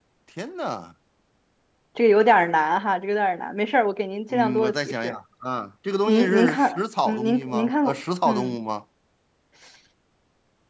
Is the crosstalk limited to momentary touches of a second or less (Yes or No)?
No